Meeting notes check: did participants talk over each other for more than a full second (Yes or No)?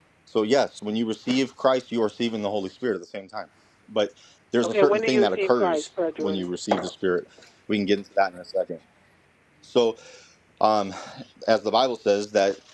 Yes